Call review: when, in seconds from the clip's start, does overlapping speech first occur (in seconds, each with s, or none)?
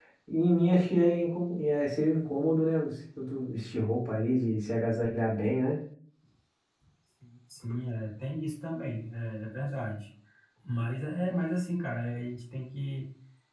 none